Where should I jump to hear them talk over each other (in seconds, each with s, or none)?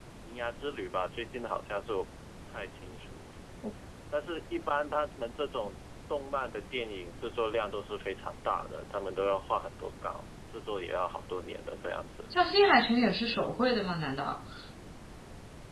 none